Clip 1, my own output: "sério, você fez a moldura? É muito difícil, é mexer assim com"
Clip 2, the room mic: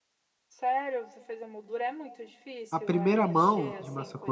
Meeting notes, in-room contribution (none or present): present